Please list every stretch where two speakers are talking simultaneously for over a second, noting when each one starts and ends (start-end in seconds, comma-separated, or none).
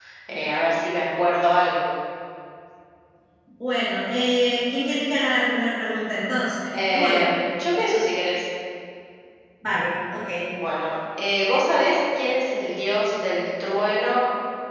none